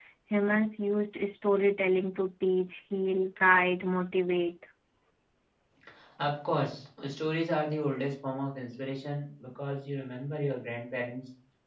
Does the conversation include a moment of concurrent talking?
No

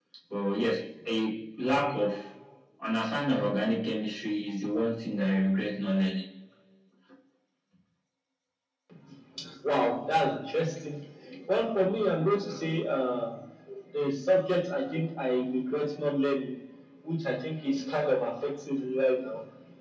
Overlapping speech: No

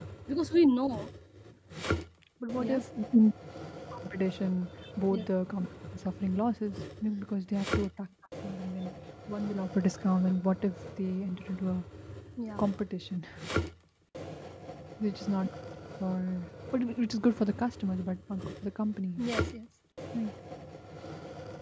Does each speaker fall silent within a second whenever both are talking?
Yes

